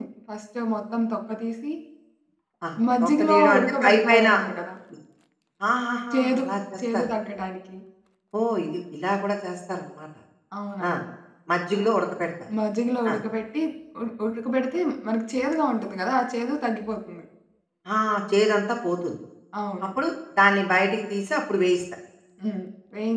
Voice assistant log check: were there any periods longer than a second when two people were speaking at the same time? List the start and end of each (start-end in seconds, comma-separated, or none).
3.0-4.3